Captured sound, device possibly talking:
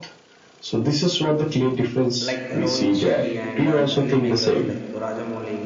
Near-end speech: present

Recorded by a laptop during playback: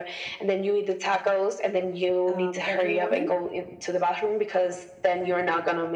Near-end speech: present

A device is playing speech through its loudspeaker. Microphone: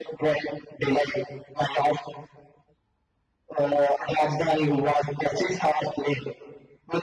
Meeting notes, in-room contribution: none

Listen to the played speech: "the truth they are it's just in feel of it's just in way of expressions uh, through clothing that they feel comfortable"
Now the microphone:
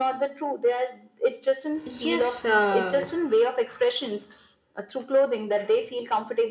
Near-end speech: present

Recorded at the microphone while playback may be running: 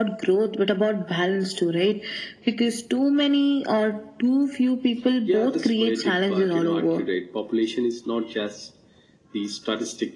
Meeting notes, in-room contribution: none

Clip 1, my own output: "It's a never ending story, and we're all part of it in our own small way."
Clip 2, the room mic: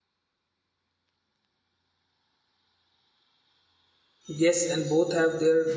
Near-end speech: present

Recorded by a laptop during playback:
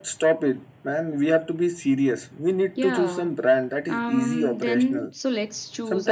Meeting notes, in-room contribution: present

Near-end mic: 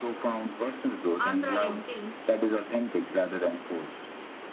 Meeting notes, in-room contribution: present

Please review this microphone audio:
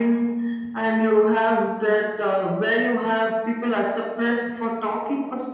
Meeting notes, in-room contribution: none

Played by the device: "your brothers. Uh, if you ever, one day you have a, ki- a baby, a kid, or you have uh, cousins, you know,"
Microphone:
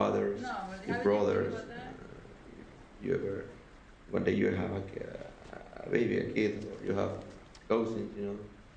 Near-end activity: present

